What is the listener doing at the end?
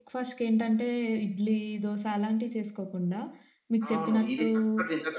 taking over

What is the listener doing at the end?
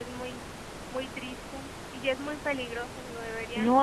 taking over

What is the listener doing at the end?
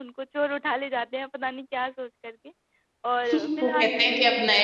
taking over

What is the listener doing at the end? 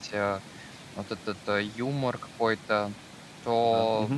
listening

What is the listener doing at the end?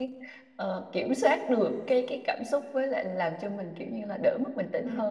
taking over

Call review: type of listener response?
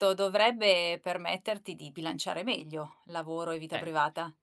taking over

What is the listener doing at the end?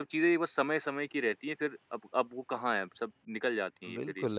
taking over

